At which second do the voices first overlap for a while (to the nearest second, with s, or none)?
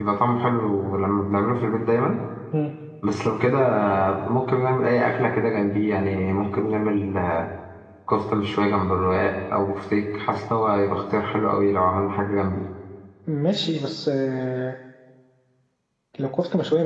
none